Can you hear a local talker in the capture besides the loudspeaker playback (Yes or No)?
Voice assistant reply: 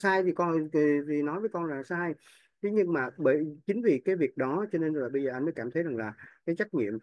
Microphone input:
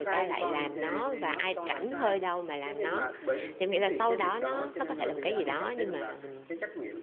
Yes